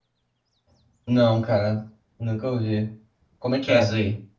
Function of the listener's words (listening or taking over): taking over